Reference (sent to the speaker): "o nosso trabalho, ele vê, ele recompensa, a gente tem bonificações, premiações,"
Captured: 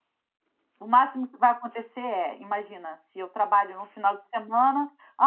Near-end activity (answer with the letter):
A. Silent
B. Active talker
B